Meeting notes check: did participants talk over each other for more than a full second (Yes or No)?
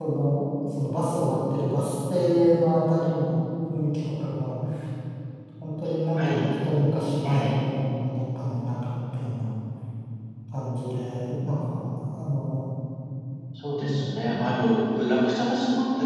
No